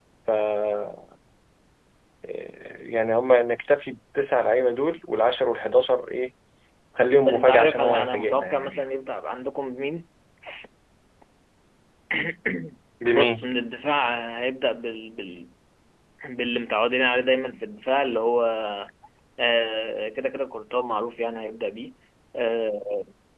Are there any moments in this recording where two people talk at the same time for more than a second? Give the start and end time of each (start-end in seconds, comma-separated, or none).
7.3-8.8